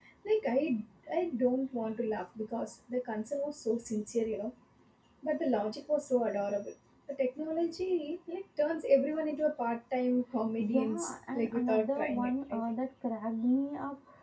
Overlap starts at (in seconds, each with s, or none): 10.6 s